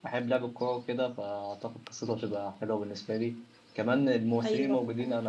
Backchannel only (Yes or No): Yes